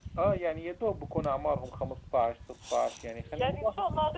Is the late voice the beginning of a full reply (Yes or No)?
Yes